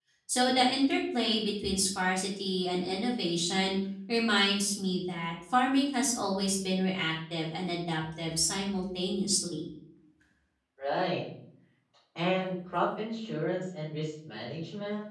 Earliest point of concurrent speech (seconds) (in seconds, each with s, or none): none